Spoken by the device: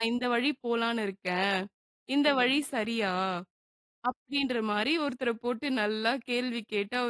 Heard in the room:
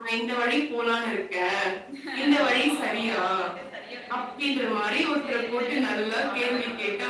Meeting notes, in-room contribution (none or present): present